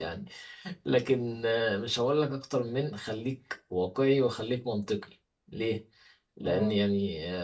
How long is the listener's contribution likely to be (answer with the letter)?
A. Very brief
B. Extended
A